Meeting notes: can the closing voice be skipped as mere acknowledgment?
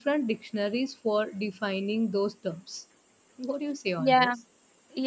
No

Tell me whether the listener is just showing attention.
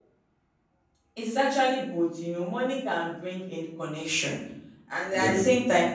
Yes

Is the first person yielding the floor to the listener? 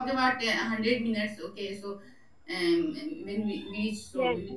Yes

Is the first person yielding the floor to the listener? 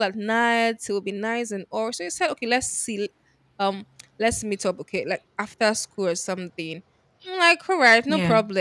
No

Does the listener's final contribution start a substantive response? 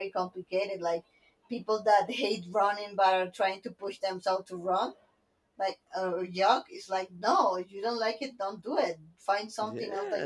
Yes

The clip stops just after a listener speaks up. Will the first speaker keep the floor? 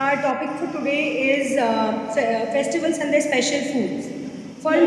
Yes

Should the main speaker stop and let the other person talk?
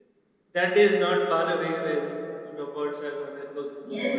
Yes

